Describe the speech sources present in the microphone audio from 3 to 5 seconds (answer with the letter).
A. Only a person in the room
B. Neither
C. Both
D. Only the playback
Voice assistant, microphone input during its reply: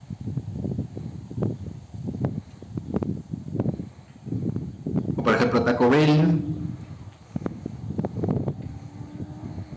B